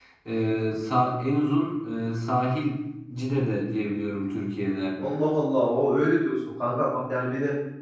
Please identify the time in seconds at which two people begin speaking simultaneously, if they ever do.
none

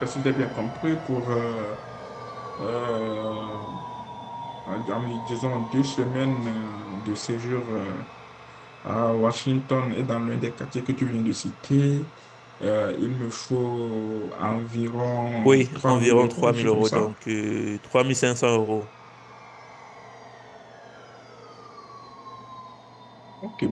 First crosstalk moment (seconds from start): 15.4 s

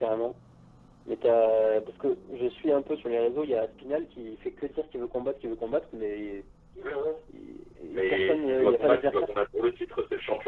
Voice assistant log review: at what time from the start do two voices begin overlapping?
7.9 s

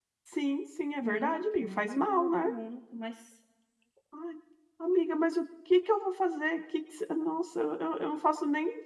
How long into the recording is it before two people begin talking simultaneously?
1.0 s

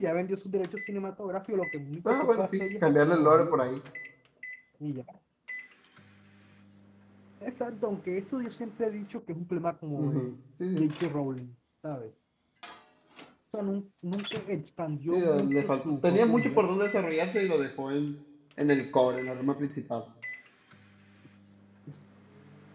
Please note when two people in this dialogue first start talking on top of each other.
2.0 s

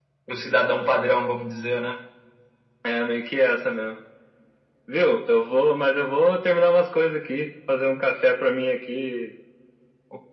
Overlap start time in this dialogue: none

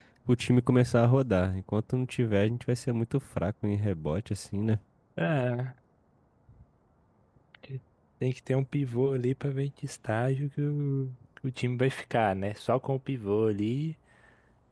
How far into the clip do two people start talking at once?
none

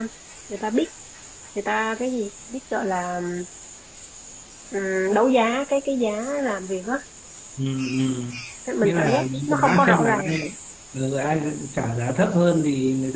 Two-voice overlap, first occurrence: 8.8 s

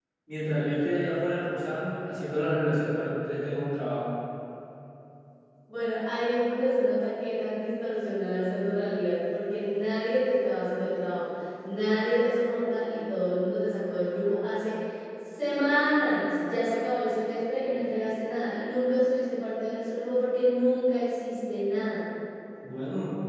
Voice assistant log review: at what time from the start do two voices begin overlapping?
none

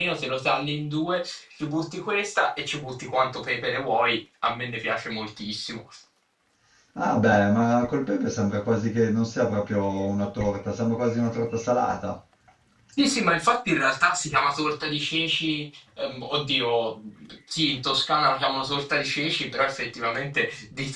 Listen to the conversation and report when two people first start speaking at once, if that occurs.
none

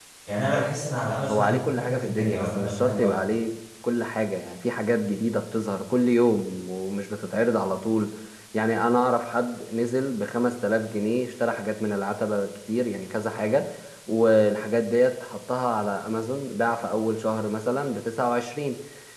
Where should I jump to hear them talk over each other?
1.3 s

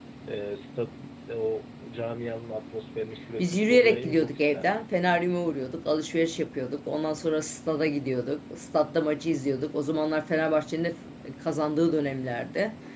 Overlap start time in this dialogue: 3.4 s

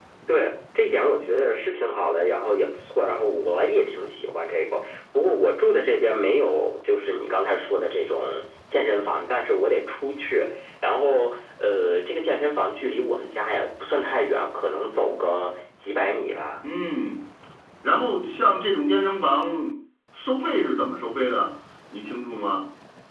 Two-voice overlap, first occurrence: none

